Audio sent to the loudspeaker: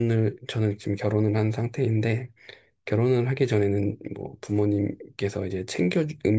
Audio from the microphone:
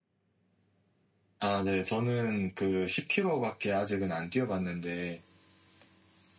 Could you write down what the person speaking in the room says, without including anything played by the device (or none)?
아, 네. 저는 그 10km밖에 아직은 안 뛰어봤는데,